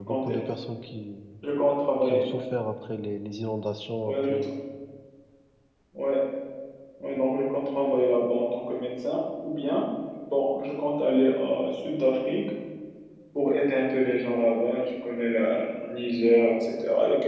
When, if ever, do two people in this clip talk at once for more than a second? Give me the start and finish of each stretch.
none

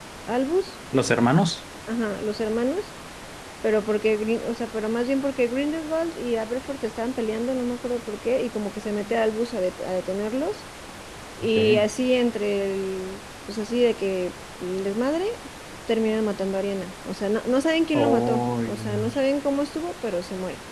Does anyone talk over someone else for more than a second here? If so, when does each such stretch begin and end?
17.9-19.2

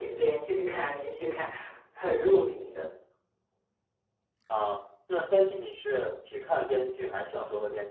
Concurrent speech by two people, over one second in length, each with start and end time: none

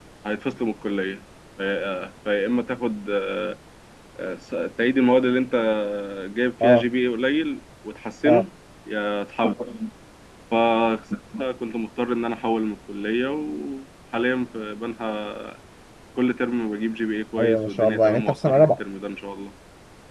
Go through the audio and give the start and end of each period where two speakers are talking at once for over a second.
17.4-18.7

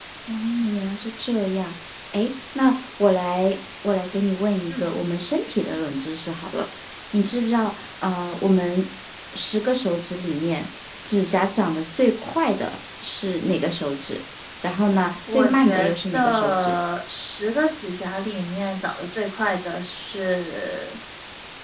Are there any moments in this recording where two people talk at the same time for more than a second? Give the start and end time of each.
15.3-16.7

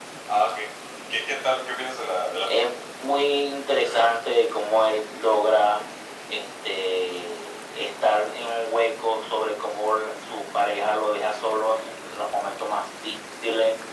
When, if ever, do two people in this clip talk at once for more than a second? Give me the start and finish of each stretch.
none

